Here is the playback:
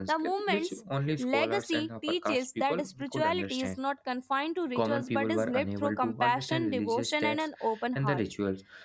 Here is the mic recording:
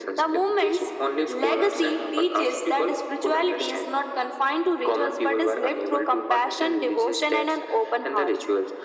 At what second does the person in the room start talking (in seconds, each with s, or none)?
none